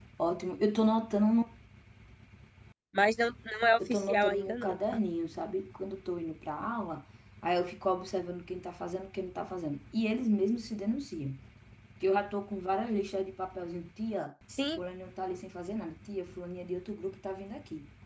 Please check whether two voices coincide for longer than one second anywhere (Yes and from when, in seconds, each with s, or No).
Yes, from 3.8 s